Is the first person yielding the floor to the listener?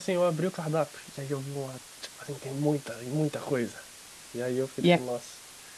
No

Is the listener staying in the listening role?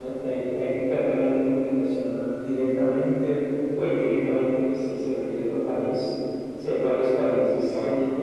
Yes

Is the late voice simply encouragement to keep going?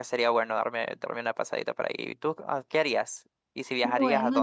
No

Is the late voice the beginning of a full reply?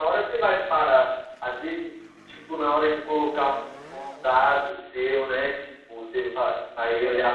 No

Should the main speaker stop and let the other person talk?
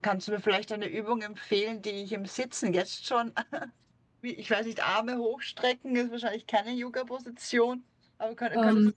No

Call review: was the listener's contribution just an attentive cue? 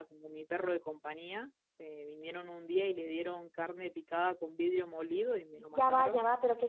No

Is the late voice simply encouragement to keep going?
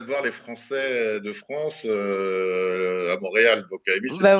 Yes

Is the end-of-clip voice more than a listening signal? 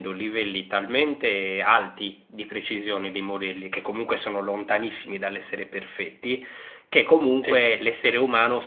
No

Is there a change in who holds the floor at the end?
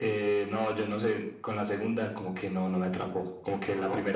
No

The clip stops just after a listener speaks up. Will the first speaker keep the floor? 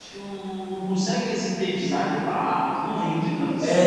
No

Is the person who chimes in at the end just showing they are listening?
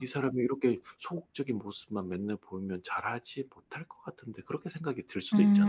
No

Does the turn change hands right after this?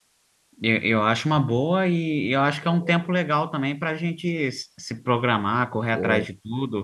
No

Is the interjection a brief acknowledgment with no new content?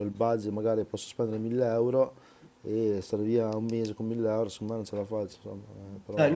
No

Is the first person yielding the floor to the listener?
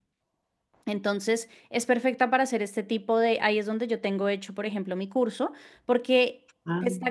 No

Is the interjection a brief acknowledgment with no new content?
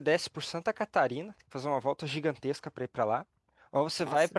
Yes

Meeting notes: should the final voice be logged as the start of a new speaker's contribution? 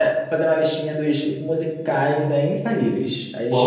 Yes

